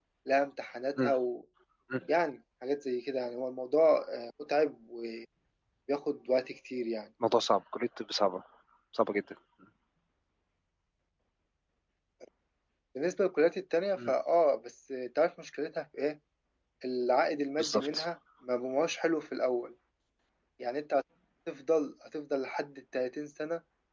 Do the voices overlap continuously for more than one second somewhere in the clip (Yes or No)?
No